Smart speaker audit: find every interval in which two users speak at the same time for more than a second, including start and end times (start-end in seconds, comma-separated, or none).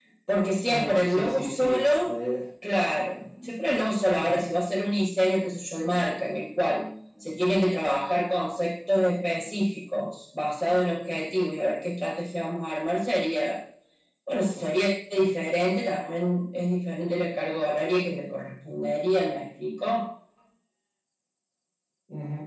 0.7-2.2